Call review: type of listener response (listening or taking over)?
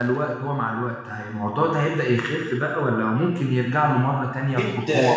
taking over